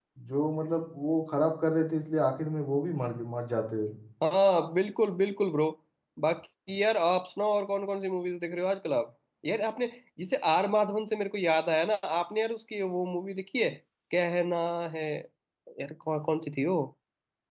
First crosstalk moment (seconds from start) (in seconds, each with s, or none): none